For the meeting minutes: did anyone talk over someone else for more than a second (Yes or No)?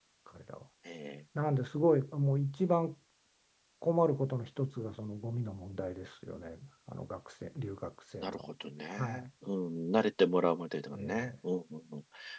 No